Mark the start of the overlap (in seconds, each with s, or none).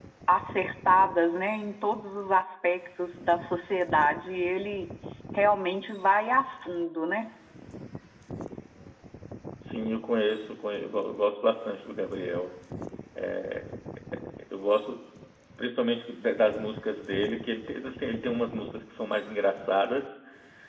none